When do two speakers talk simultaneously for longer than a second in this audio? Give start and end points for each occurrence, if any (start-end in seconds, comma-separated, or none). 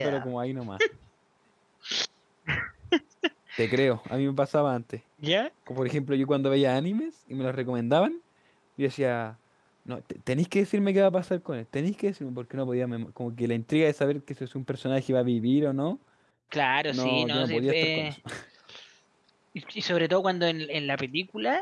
16.9-18.2